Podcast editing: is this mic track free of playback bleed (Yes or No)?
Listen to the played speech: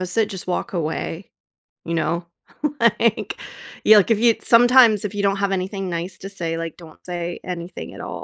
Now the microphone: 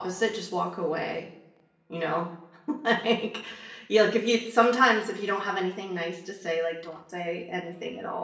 No